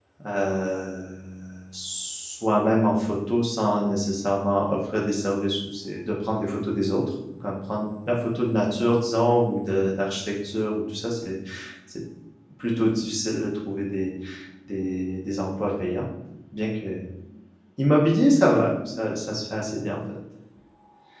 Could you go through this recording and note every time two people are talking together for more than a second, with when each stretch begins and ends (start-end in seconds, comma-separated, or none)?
none